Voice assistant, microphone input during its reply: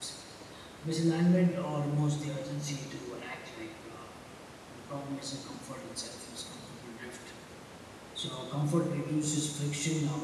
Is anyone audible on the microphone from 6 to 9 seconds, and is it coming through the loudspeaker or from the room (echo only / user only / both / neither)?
user only